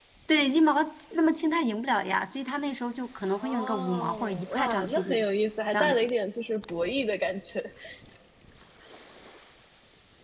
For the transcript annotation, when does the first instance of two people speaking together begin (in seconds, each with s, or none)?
3.4 s